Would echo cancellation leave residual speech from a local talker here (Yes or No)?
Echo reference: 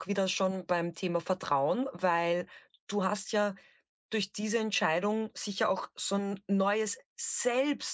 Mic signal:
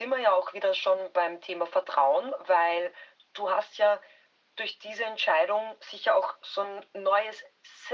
No